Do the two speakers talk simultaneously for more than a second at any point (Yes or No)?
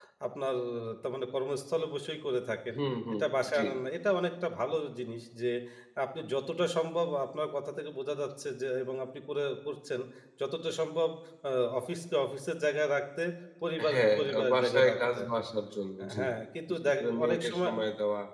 Yes